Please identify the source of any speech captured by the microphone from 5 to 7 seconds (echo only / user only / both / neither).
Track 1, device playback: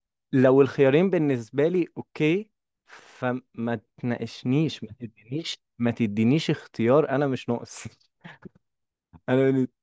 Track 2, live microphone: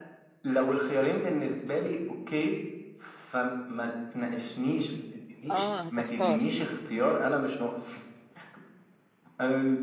both